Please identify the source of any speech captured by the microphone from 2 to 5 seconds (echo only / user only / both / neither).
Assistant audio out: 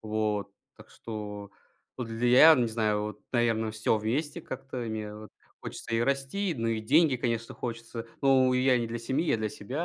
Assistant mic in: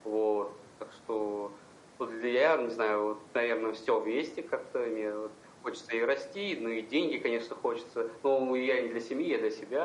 echo only